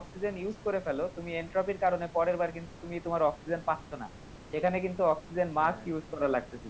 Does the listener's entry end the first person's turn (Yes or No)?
No